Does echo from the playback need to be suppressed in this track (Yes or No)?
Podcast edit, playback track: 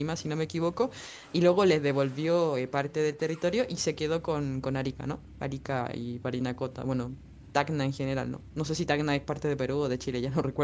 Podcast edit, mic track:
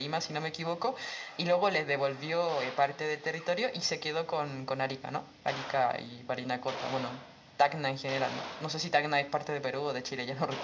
Yes